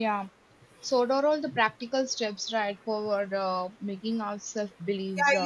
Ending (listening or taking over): taking over